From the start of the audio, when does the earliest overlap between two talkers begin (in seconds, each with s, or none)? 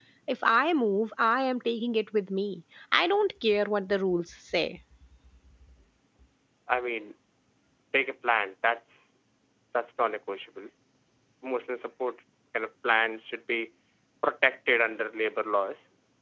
none